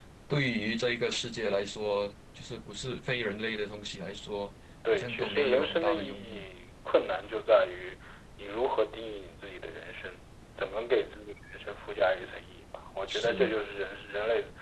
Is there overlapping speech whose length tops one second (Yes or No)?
Yes